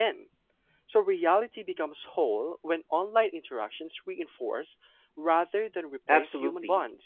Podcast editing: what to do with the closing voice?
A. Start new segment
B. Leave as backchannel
A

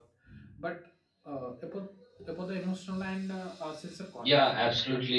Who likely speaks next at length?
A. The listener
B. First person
A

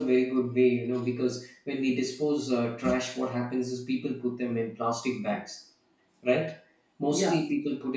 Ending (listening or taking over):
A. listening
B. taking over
A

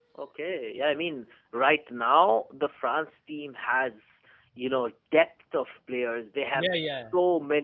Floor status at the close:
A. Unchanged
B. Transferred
A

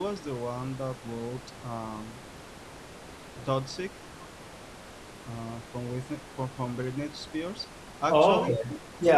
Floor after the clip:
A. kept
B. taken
B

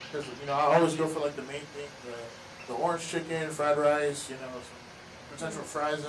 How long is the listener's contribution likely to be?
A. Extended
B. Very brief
B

